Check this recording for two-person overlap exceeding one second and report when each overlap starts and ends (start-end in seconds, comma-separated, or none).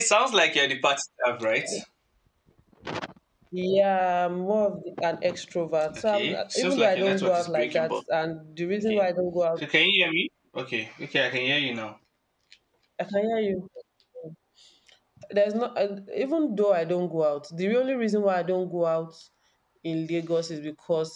6.0-8.0